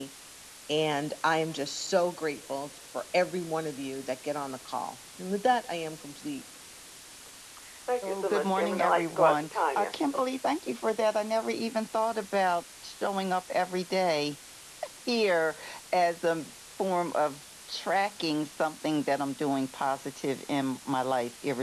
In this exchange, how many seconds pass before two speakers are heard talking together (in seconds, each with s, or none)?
8.0 s